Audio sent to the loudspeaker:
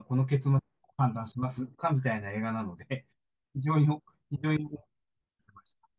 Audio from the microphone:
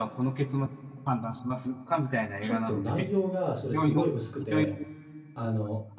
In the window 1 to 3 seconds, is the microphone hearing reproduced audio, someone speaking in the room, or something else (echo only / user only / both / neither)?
both